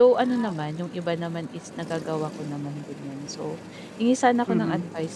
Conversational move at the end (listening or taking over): listening